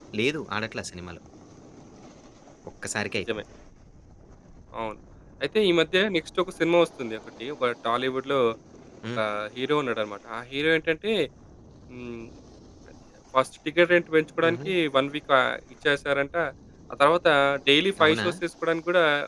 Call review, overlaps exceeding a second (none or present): none